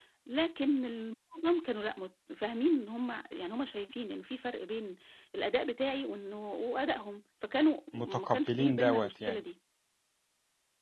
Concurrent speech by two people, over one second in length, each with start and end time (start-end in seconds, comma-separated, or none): 7.9-9.4